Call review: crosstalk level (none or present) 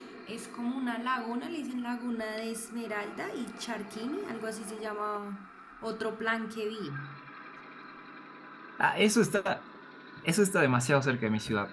none